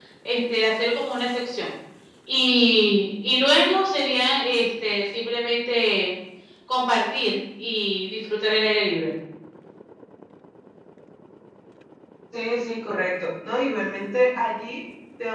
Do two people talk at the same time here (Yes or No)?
No